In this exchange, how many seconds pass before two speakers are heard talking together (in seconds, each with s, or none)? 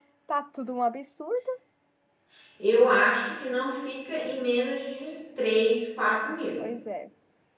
none